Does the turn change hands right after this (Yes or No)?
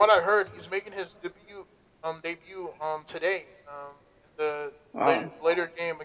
No